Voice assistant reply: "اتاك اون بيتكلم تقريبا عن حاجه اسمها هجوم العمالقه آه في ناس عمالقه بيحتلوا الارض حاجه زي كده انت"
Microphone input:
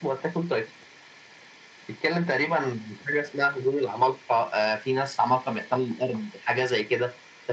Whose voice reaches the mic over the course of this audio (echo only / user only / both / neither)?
echo only